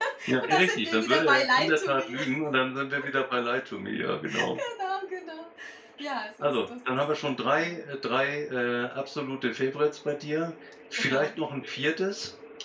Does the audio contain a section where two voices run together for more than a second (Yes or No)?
Yes